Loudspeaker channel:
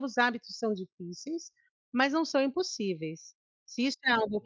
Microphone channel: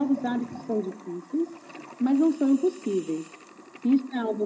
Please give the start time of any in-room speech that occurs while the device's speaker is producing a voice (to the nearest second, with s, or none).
none